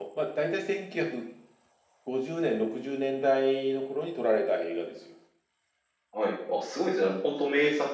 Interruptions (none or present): none